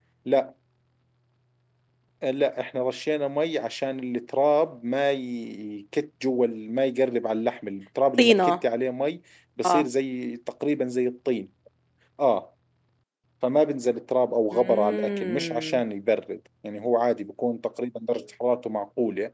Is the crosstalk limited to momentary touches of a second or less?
No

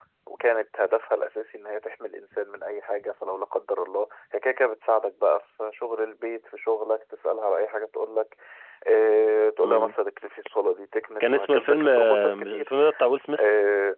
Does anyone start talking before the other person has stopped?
Yes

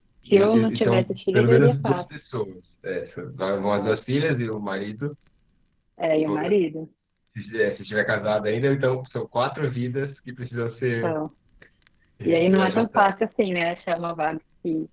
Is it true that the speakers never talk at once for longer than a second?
No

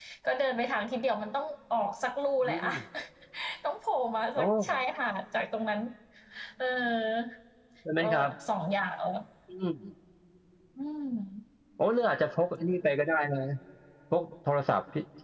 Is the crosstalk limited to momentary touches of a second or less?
Yes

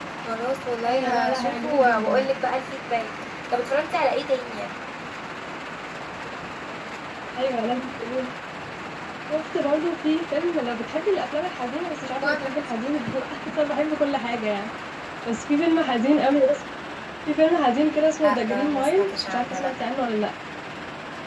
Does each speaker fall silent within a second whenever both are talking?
No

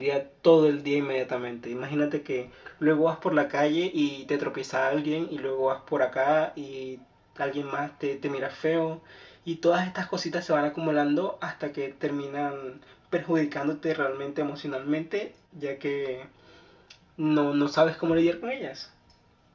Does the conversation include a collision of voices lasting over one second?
No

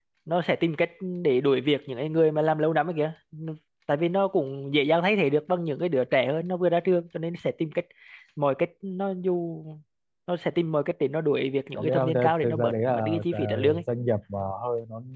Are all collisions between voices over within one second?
No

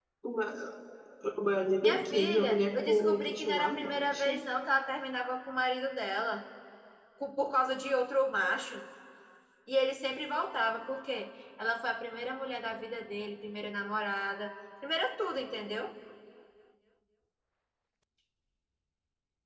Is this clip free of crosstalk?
No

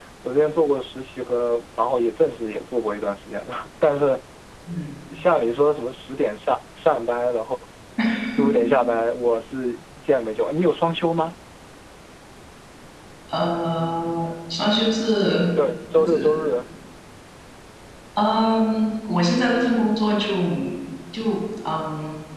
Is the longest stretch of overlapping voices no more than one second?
Yes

